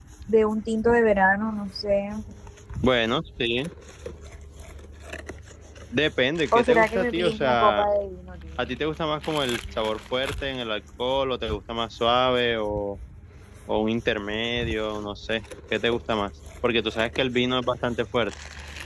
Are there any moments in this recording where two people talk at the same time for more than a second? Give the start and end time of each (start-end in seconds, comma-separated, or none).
6.5-7.9